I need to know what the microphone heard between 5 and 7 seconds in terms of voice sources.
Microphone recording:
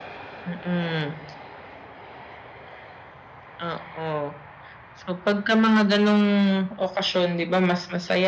echo only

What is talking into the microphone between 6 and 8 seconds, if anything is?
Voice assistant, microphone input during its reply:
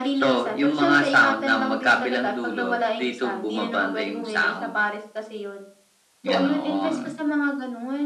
echo only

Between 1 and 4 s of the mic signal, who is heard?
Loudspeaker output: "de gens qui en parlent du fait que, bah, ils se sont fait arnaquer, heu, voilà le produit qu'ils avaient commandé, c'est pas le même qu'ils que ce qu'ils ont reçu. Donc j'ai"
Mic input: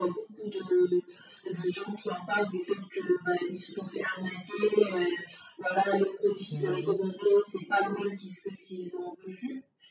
echo only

